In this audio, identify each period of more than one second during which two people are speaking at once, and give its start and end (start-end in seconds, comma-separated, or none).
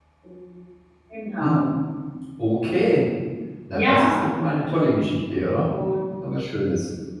none